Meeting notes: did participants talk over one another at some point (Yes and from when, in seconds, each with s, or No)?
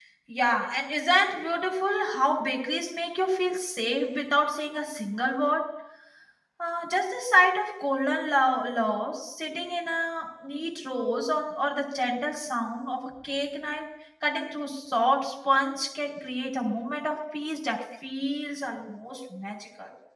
No